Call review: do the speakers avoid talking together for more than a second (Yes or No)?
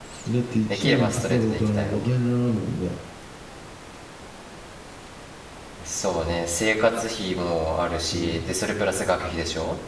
No